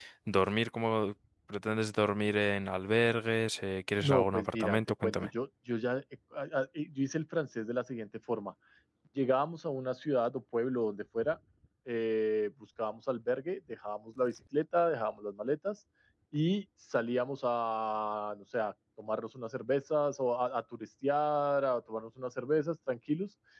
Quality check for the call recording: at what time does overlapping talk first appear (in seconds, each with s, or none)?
4.0 s